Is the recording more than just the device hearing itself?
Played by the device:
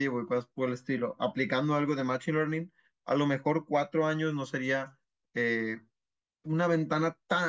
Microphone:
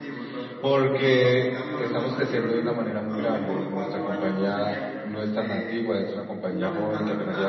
Yes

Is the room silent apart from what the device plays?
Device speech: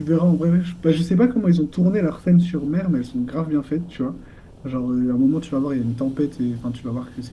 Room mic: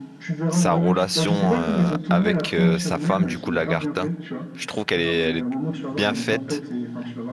No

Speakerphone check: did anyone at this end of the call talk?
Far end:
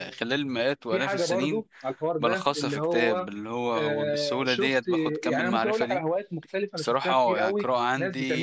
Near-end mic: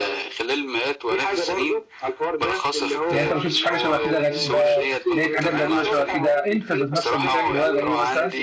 Yes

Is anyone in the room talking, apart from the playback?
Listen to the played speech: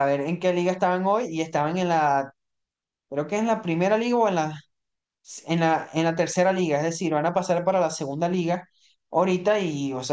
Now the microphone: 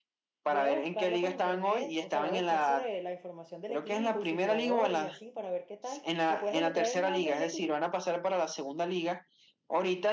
Yes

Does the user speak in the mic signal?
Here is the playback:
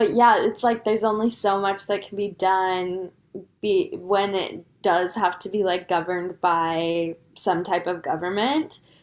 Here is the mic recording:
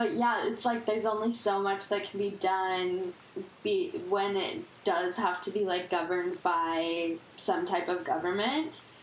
No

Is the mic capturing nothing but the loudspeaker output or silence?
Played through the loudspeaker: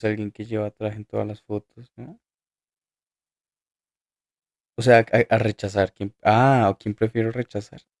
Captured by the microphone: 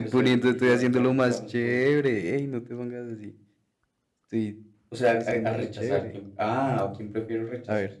No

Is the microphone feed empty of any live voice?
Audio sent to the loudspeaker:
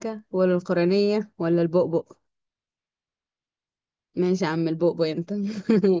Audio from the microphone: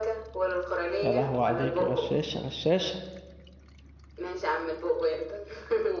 No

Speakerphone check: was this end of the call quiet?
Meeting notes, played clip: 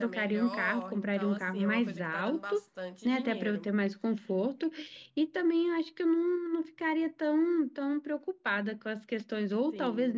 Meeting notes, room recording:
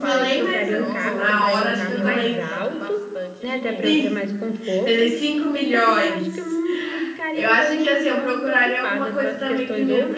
No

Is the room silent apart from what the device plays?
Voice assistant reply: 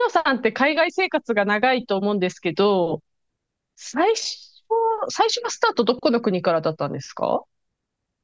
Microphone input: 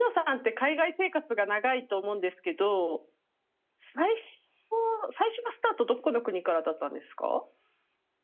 Yes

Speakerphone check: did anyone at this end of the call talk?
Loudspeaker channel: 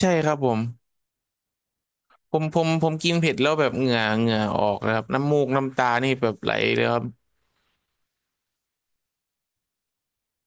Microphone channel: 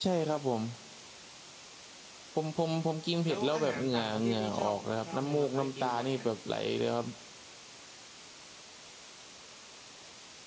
Yes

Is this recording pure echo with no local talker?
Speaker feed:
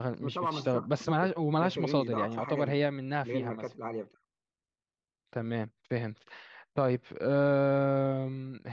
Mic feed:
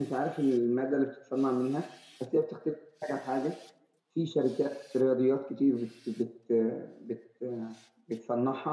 No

